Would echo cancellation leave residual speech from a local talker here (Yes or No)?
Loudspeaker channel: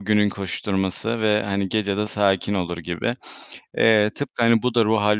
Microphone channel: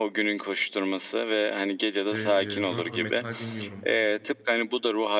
Yes